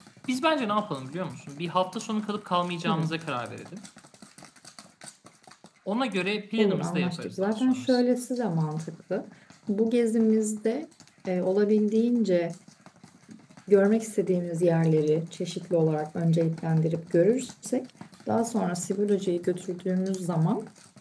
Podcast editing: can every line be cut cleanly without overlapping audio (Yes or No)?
No